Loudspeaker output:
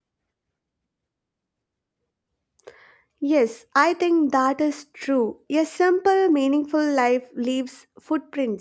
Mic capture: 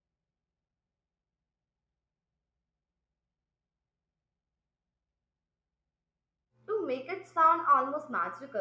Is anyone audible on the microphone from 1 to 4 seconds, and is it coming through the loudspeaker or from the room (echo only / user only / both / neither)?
neither